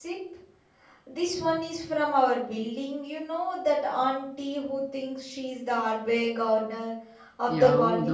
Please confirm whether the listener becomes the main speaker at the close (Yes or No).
Yes